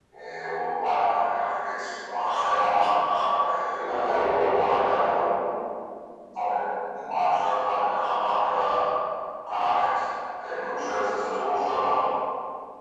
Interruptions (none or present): present